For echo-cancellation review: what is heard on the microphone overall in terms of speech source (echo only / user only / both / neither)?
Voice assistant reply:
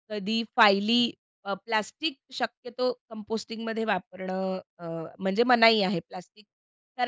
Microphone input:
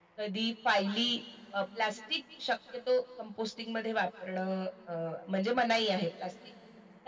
echo only